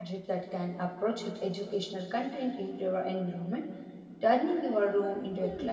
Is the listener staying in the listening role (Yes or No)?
No